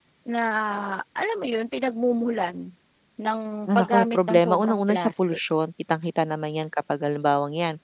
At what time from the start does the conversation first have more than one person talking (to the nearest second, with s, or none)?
4 s